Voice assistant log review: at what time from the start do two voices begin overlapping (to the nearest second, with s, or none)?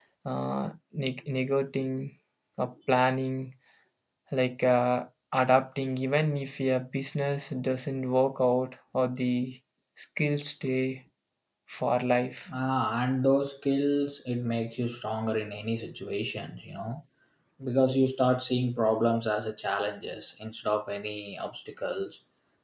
none